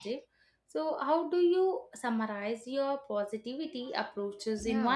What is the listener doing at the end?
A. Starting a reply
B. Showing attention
A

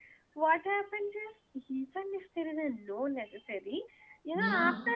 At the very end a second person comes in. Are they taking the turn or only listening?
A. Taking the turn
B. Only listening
B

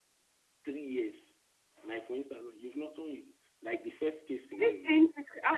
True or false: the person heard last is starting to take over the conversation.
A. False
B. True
B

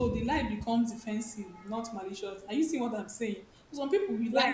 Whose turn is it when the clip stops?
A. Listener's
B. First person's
B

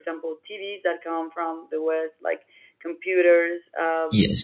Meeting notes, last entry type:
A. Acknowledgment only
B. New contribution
A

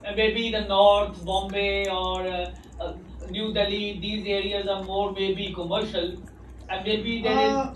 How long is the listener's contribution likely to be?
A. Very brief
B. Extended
A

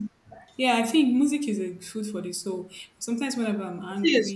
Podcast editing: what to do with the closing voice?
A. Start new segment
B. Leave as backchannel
B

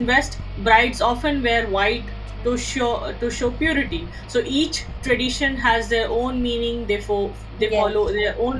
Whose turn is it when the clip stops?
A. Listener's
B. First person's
B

